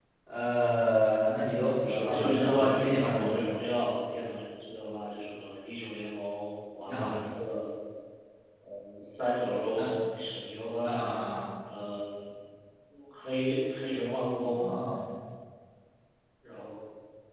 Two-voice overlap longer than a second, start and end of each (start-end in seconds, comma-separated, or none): 1.9-3.4